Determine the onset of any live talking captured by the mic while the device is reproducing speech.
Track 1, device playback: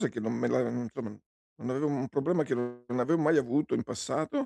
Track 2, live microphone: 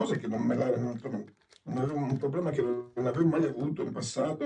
none

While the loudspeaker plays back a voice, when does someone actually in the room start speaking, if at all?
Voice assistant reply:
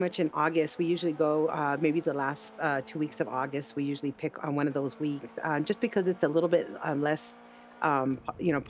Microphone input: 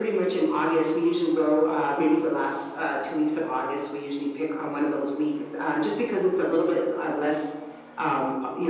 none

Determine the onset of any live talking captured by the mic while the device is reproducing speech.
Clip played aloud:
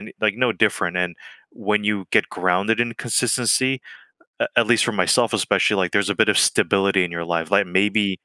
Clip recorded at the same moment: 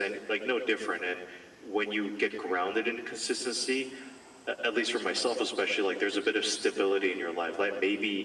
none

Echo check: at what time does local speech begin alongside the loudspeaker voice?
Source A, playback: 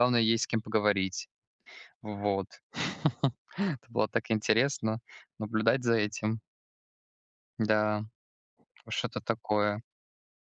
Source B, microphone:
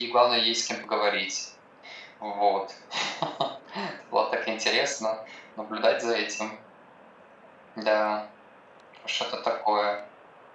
none

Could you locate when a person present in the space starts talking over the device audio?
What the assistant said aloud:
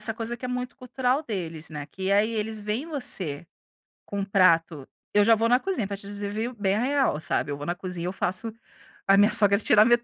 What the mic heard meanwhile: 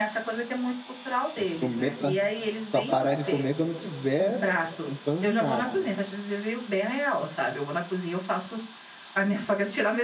1.3 s

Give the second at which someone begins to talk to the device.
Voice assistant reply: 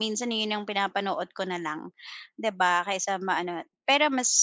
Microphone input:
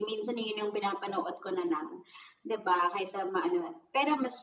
none

